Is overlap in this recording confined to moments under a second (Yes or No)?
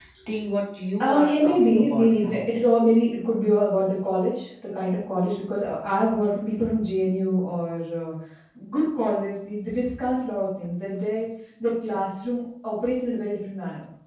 No